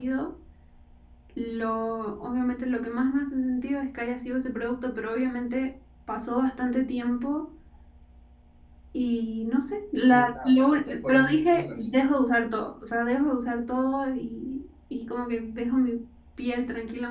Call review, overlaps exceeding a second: present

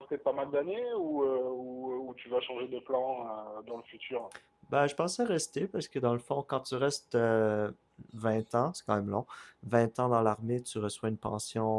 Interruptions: none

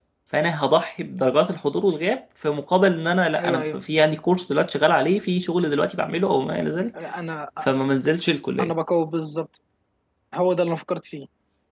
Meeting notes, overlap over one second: none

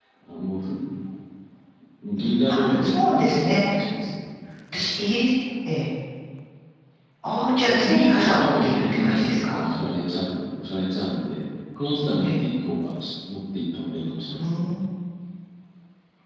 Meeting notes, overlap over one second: present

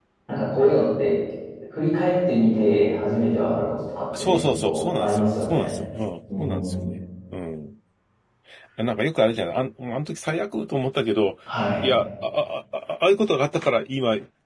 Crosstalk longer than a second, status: present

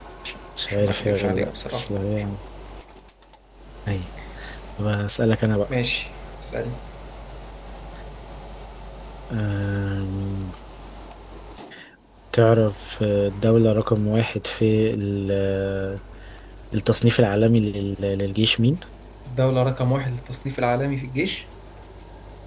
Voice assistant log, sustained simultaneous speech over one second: present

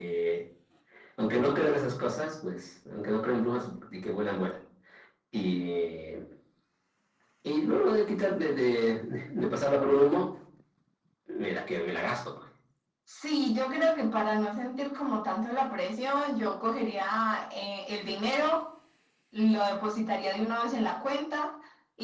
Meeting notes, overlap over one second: none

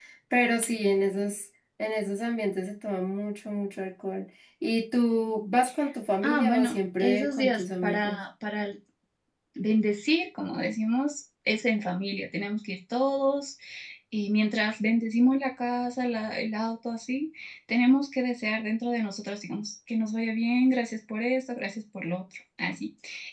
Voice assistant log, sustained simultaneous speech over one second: present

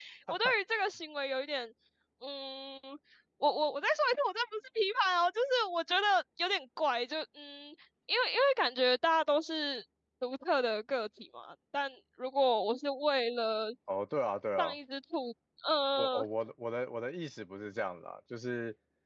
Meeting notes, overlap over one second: none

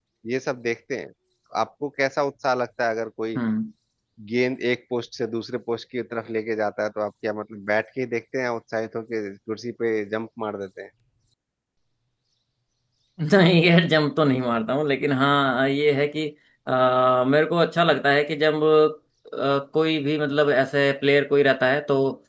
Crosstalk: none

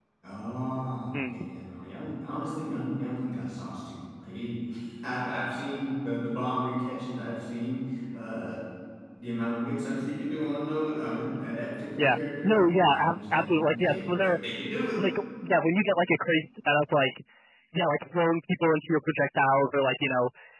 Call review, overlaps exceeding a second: present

